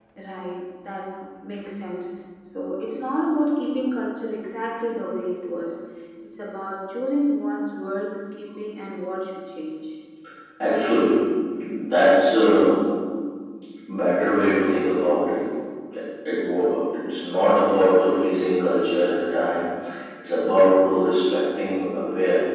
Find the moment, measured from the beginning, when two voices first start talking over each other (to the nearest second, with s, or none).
none